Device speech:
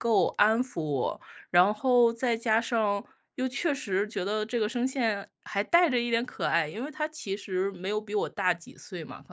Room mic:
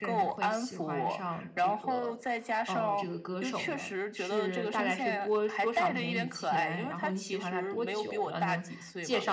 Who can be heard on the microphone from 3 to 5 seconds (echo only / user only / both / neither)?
both